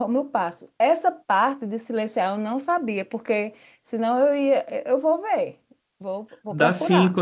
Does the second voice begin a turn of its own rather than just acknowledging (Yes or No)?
Yes